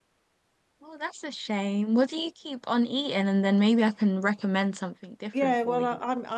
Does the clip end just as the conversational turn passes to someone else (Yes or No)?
Yes